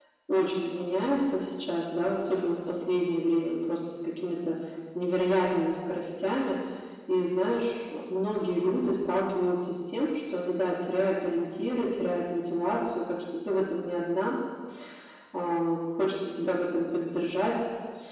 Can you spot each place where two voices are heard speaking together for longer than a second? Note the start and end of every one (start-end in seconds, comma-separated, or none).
none